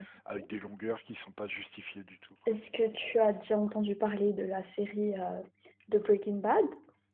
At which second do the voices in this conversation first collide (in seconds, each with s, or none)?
none